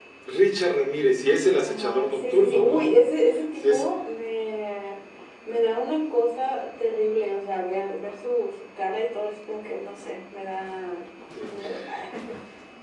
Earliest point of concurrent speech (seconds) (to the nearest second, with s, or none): 2 s